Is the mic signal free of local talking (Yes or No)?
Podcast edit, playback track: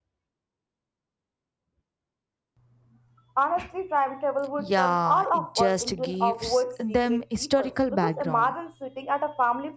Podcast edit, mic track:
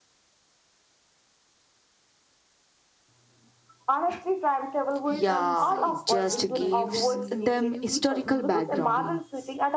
No